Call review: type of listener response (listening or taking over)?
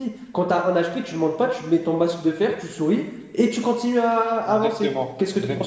taking over